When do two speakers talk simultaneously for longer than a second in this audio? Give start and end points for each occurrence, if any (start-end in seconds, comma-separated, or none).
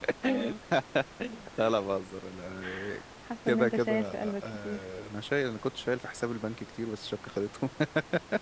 3.5-4.8